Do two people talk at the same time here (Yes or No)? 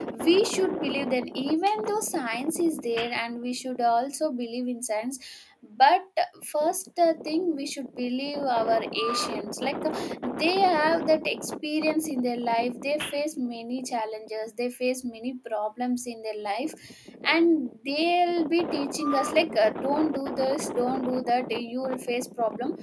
No